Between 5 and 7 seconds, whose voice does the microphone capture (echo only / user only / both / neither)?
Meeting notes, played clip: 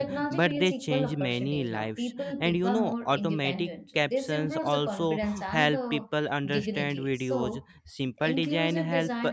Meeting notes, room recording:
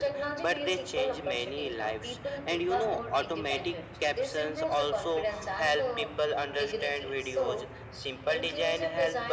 echo only